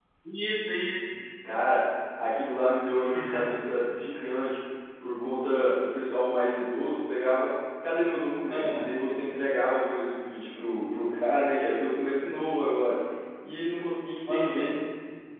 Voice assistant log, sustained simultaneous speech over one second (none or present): none